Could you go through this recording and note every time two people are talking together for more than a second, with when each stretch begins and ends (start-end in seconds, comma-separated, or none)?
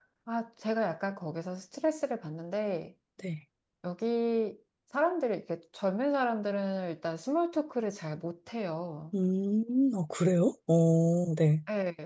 none